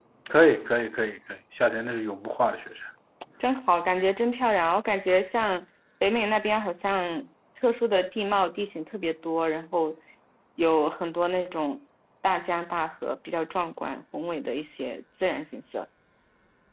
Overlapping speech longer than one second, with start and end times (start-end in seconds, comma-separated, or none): none